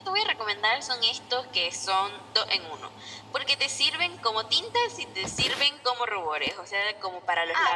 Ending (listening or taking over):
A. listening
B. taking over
B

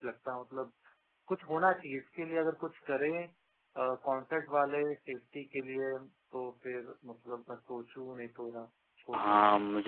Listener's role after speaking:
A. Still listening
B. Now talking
B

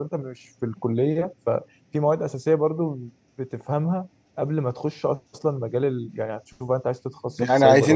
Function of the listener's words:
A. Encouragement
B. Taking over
B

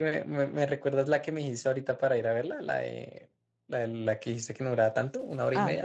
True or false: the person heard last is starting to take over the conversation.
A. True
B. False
A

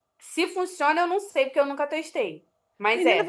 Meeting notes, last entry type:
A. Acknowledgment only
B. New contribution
B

